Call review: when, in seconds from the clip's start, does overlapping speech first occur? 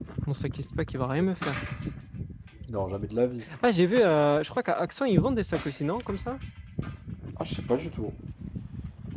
none

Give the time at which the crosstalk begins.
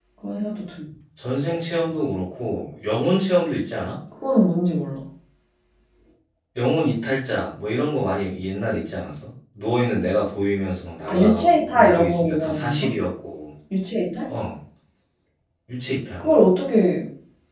11.1 s

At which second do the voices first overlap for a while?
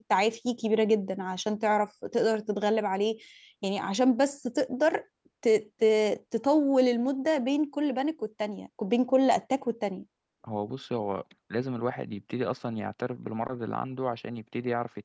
none

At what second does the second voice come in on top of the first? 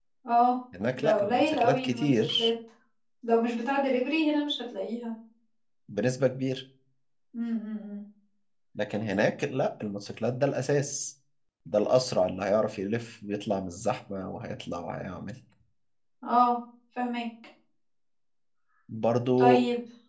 0.9 s

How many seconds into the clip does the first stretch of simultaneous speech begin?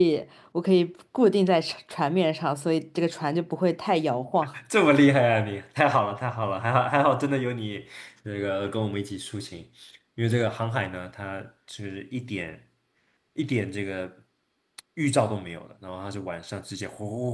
none

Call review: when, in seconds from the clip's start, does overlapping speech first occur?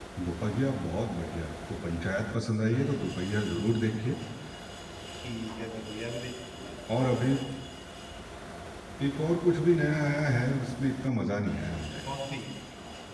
none

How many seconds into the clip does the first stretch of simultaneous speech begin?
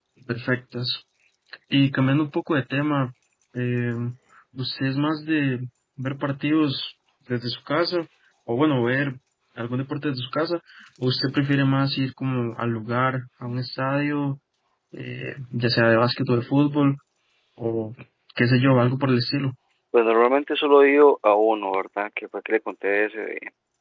none

